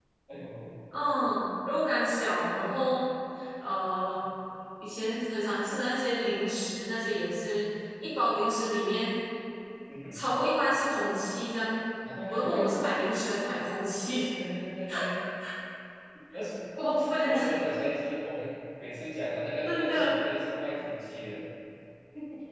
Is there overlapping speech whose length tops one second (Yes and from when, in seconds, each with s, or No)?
No